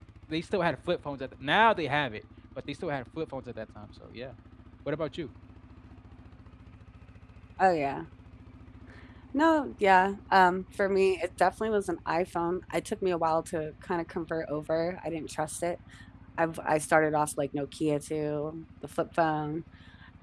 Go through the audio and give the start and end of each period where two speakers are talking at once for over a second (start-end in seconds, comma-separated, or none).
none